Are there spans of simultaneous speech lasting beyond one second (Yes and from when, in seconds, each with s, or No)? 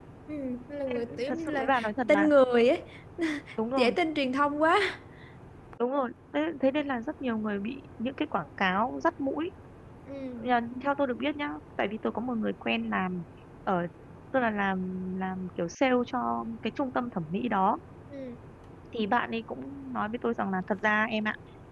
Yes, from 1.0 s